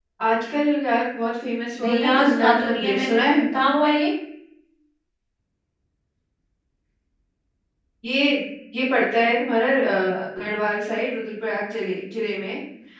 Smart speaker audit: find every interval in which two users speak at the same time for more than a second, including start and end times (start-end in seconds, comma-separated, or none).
1.8-3.3